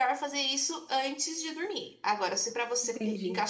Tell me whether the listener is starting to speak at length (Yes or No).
No